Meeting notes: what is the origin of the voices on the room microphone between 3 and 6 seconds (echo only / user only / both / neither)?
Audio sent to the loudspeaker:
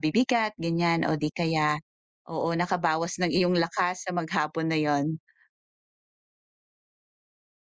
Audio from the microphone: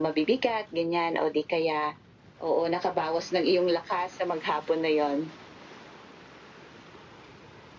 echo only